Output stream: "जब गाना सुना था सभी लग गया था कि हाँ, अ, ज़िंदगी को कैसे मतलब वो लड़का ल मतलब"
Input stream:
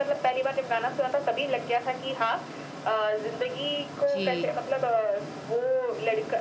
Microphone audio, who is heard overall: both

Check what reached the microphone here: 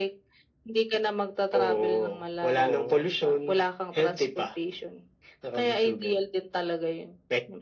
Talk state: both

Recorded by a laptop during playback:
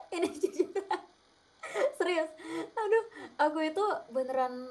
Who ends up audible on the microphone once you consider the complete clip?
user only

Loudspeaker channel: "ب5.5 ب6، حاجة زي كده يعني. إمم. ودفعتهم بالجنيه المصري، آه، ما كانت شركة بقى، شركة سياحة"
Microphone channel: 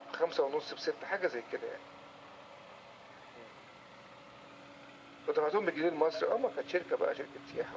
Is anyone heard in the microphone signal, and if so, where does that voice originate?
echo only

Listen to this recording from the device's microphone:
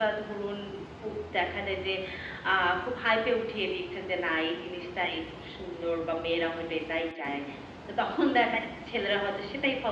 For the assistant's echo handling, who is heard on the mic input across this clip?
echo only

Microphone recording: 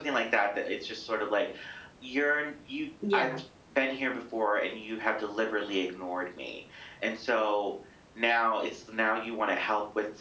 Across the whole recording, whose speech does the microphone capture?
both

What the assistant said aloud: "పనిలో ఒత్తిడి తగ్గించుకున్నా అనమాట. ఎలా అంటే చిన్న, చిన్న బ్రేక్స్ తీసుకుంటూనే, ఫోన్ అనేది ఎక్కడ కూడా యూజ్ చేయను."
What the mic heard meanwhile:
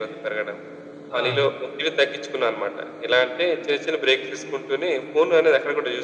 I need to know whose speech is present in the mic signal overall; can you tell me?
both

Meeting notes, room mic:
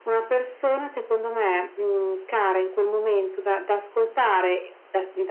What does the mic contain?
echo only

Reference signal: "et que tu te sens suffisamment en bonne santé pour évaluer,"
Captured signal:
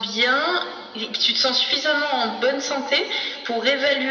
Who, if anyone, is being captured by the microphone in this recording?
echo only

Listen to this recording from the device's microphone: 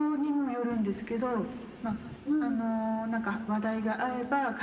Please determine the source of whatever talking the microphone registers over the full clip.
both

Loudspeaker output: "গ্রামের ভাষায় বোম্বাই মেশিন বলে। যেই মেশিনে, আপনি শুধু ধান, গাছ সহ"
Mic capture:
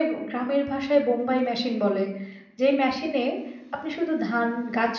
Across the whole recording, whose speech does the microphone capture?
echo only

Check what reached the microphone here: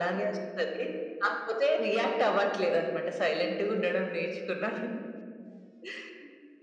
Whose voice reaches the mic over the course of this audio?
echo only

